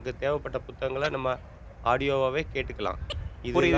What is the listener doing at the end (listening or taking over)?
taking over